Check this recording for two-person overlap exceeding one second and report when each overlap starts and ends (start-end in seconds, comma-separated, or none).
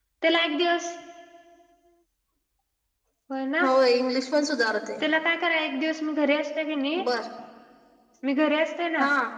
none